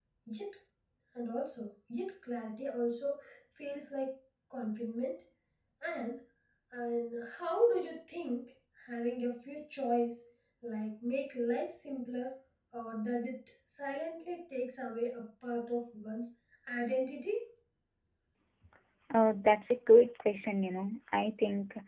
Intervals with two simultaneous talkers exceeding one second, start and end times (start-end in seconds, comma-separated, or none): none